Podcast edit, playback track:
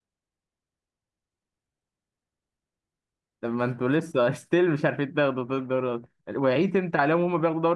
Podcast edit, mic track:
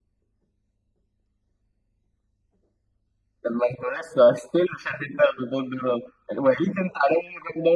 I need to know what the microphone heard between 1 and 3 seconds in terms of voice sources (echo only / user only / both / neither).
neither